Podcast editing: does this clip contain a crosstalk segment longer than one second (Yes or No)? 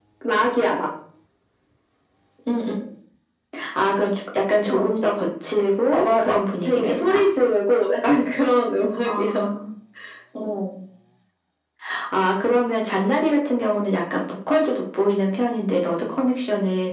Yes